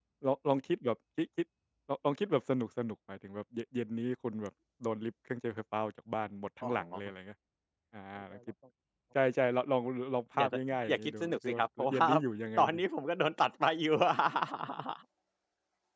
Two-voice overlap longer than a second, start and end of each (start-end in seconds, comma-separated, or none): 10.4-12.1